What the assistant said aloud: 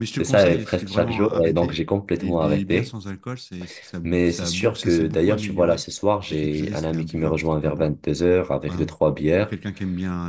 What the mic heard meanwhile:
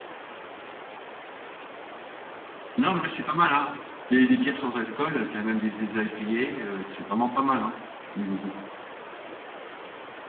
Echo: none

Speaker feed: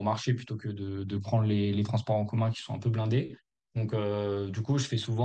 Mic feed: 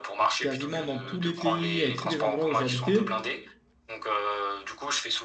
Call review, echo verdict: present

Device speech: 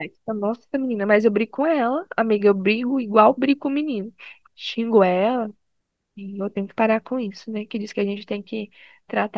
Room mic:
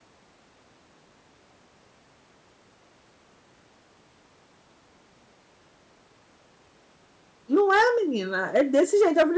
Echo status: none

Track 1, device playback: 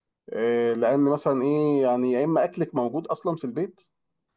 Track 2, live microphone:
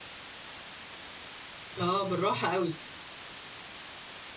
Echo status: none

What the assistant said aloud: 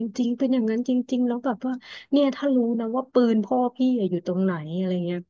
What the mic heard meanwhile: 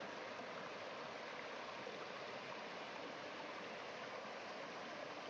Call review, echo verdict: none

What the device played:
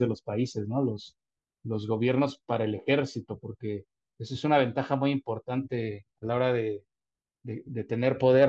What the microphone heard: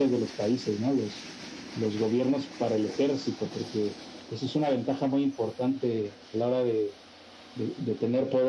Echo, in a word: present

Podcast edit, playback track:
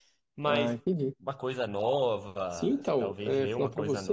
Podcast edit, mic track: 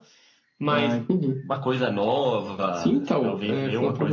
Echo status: present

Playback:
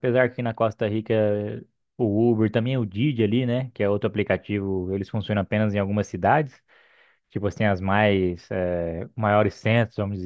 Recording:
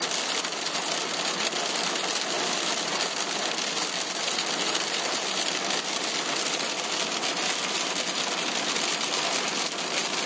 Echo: none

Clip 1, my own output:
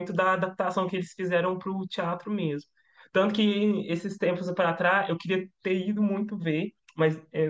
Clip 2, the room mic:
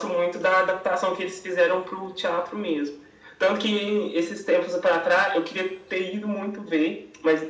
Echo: present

